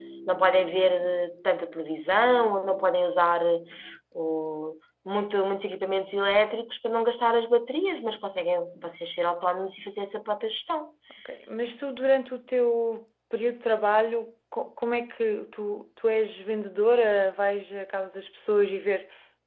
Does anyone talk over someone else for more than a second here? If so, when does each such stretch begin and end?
none

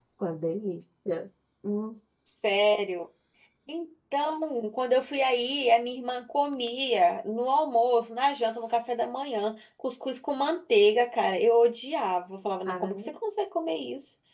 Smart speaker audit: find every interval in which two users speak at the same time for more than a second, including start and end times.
none

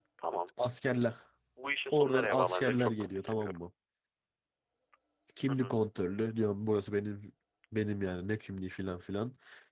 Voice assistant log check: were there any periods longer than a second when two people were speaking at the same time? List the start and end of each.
1.9-3.6

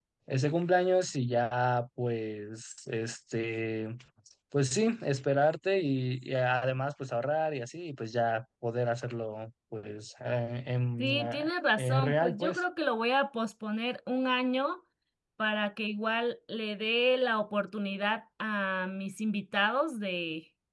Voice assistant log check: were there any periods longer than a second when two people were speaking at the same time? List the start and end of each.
11.0-12.6

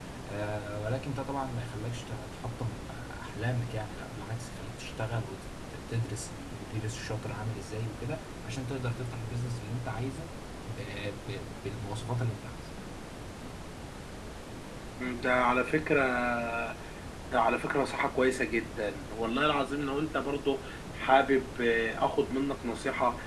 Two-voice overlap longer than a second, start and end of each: none

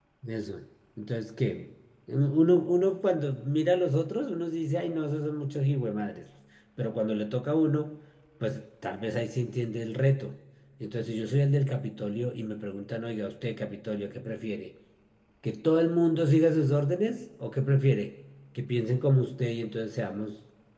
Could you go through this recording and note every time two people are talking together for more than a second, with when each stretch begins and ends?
none

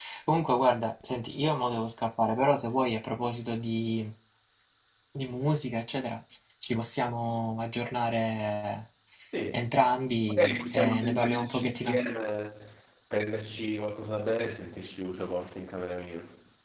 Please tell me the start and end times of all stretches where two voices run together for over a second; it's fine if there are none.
10.3-12.0

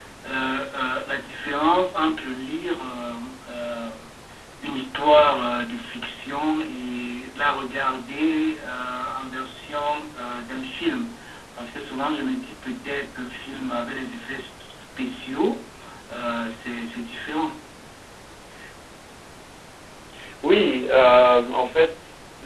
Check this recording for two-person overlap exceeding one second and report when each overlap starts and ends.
none

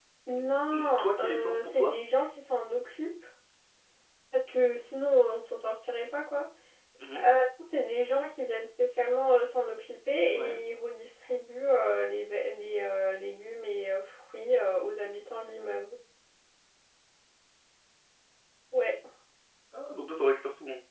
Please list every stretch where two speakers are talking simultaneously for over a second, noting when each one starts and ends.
0.7-1.9

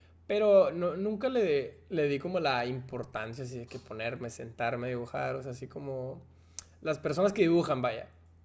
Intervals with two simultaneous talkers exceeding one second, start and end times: none

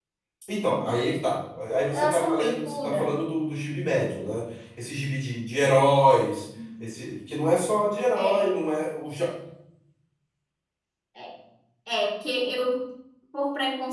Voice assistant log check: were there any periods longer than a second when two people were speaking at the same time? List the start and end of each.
1.9-3.1

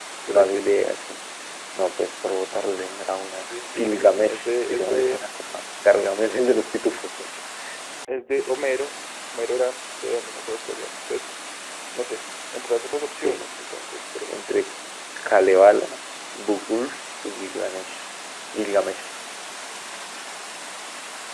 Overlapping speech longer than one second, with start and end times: 3.9-5.2

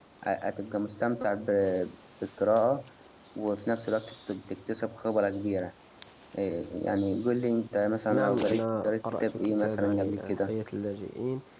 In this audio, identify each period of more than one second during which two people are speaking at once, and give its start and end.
8.1-10.5

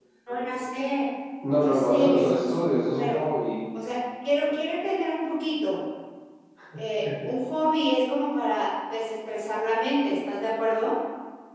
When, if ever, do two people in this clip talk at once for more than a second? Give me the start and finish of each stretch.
1.6-3.2

